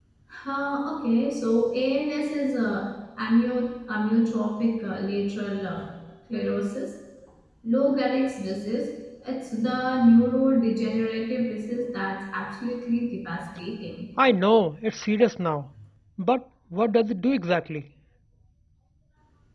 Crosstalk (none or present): none